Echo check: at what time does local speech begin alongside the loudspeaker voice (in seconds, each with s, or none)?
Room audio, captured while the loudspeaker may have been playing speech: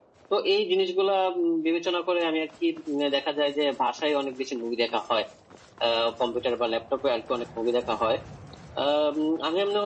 none